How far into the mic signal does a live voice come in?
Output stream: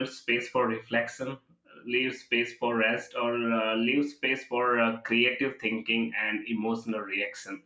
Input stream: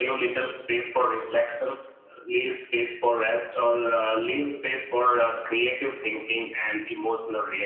none

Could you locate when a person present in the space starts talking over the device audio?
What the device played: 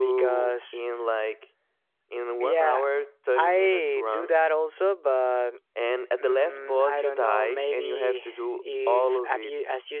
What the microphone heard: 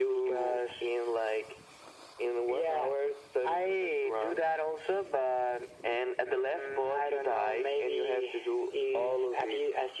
none

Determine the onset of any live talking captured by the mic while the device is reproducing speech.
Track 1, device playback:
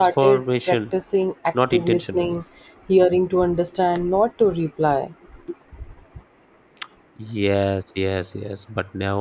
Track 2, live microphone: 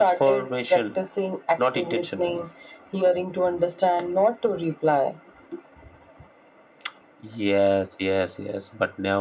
none

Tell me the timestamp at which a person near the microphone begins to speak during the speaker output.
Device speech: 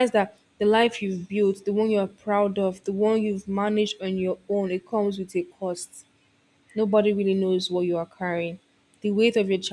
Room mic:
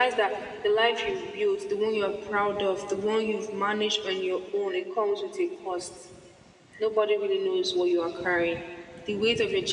none

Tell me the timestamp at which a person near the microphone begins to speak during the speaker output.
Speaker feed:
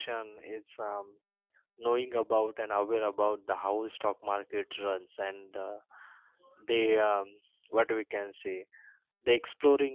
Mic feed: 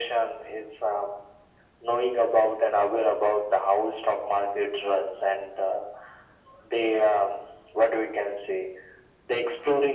none

